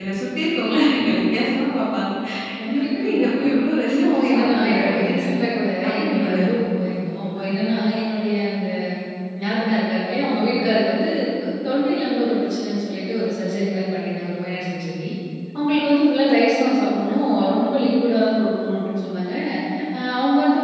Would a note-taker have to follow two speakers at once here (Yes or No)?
Yes